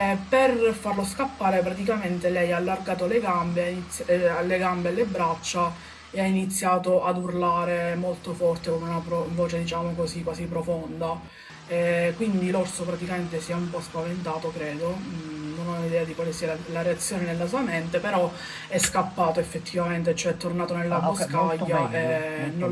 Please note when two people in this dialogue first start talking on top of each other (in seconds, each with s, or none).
20.9 s